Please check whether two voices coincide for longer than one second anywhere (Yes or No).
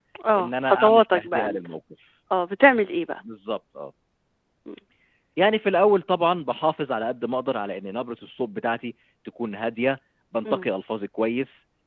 Yes